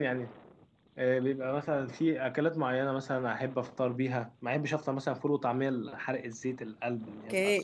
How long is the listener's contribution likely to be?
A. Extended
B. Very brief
A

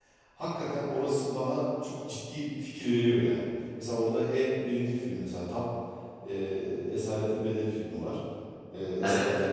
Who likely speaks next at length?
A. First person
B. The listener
A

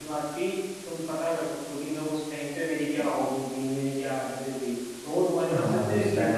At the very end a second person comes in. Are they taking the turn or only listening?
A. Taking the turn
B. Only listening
A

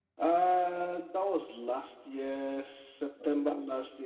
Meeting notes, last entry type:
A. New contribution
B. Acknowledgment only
B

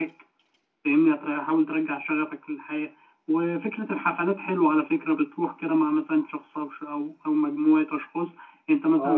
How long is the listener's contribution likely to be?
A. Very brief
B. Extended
B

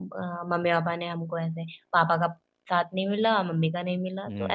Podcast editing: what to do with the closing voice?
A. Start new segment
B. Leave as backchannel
A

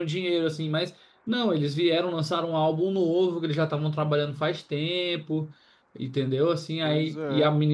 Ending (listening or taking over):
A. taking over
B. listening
B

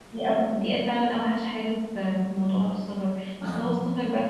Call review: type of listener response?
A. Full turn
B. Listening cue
B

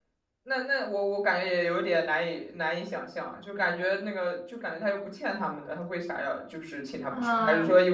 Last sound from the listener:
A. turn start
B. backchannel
A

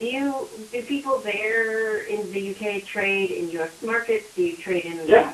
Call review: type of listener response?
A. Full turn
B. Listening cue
A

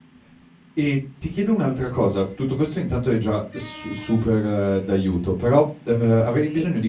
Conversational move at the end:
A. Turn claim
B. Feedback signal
B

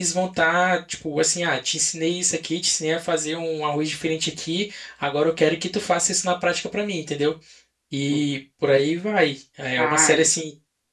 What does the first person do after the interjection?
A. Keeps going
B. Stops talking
A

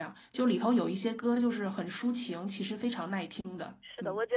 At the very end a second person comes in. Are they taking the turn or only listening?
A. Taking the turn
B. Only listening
A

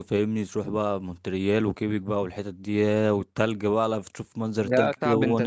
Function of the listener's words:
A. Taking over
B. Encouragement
A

